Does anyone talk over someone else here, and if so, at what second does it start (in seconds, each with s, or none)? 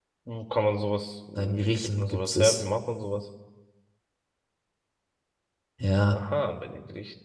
1.4 s